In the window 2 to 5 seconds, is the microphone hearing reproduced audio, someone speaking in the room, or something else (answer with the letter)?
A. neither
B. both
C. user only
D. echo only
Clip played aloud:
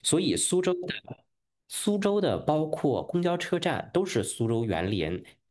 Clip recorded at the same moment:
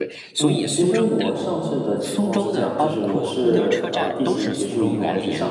B